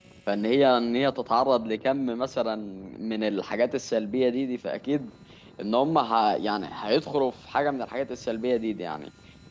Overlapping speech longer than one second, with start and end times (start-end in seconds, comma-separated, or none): none